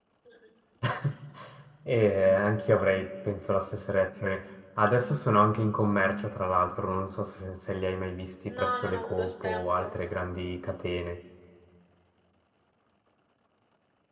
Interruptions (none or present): present